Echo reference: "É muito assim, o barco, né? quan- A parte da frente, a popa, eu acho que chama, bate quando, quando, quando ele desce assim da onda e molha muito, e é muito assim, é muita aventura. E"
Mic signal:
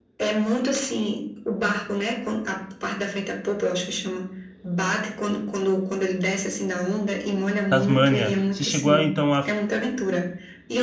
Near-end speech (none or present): present